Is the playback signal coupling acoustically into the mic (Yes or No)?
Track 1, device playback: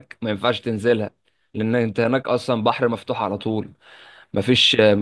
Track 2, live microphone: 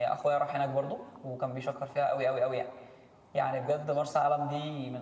No